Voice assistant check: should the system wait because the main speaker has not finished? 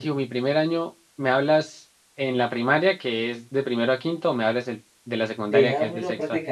No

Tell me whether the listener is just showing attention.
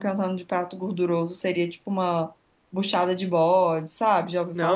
No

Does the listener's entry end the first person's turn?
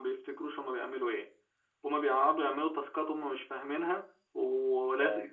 No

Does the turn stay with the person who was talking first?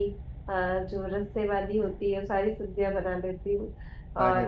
Yes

